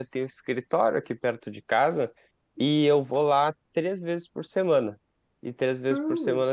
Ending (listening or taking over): taking over